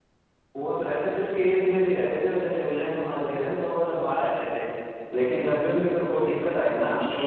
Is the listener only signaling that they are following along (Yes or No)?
No